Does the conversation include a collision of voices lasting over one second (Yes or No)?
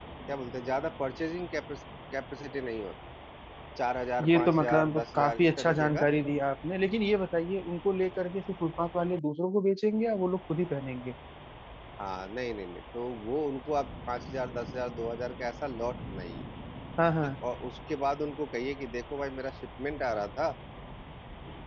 Yes